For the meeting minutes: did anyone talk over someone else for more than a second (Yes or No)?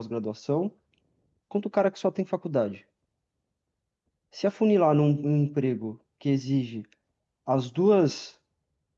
No